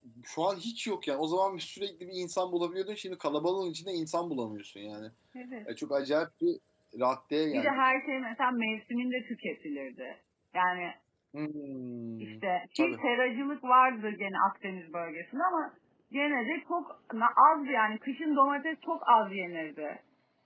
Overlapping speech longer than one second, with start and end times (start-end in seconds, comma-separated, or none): none